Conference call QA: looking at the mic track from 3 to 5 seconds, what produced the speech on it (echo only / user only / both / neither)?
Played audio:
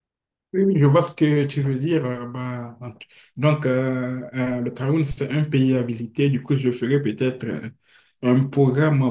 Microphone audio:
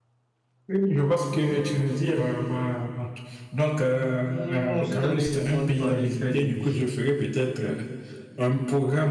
both